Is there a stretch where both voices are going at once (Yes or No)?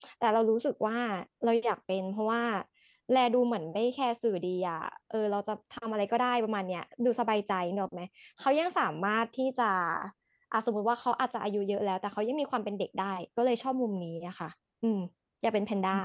No